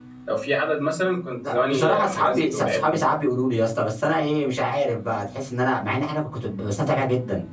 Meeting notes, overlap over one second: present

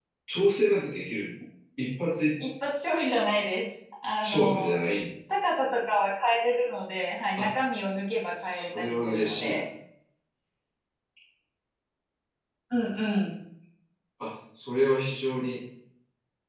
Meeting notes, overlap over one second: present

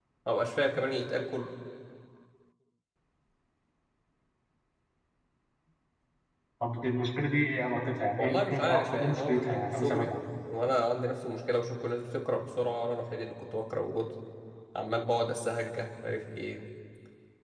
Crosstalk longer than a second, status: present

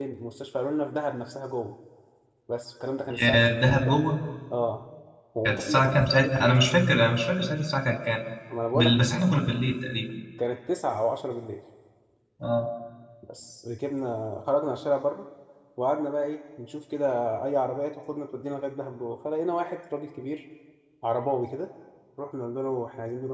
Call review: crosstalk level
present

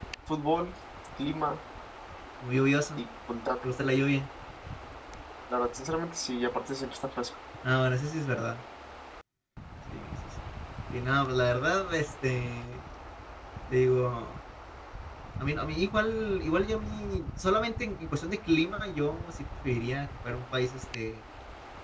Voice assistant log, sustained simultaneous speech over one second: none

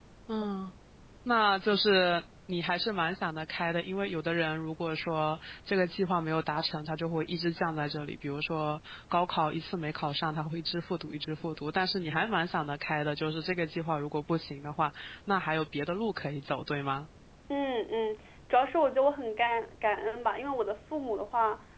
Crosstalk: none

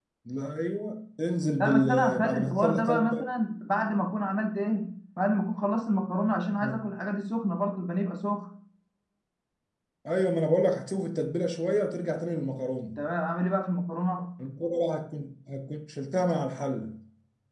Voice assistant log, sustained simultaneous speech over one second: present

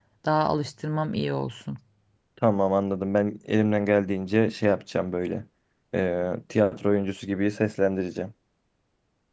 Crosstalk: none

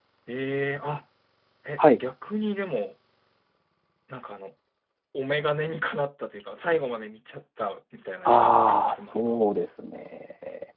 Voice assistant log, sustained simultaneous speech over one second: present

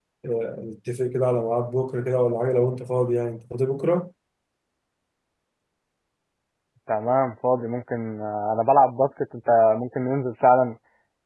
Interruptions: none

